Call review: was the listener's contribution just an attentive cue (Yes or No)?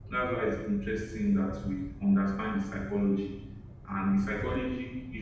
Yes